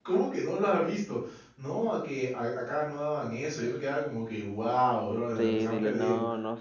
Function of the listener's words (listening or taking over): taking over